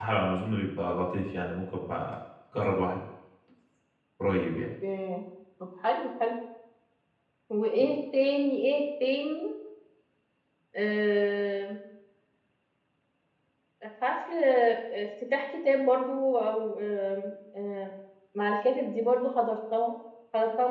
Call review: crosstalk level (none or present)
none